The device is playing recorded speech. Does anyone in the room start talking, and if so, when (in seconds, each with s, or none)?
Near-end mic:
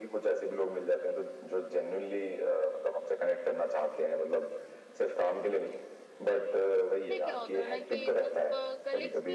7.1 s